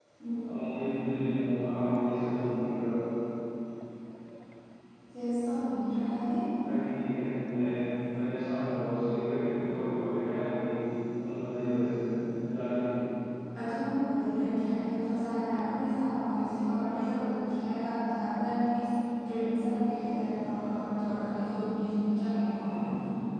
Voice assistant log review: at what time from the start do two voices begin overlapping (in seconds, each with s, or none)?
none